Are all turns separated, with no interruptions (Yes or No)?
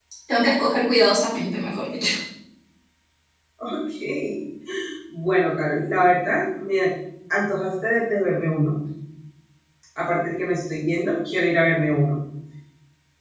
Yes